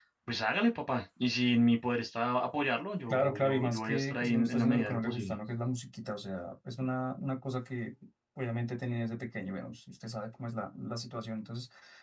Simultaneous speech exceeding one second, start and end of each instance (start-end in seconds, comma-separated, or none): 3.1-5.3